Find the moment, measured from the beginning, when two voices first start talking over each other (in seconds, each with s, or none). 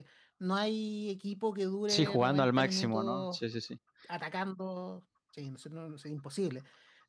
1.9 s